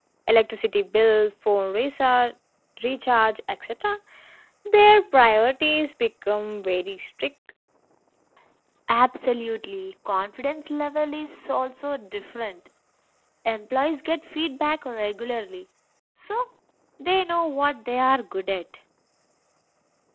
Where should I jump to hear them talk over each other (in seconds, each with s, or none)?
none